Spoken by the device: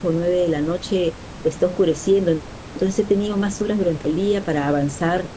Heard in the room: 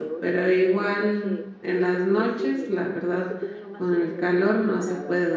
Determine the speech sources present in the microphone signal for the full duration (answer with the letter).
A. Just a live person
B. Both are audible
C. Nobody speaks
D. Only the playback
B